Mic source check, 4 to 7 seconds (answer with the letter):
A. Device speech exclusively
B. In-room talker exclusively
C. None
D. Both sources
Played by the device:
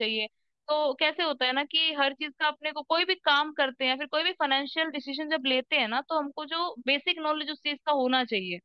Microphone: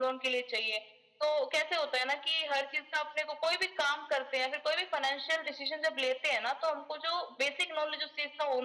A